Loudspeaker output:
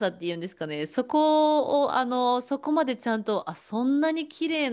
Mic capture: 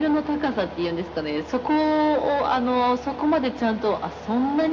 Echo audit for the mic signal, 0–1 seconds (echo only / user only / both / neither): echo only